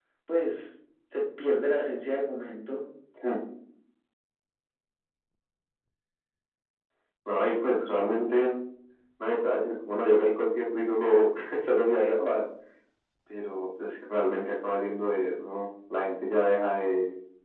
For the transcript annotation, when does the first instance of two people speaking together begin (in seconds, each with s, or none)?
none